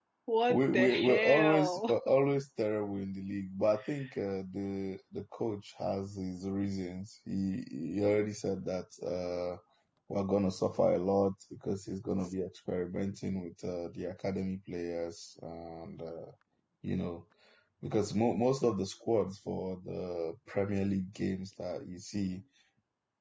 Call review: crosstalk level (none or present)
present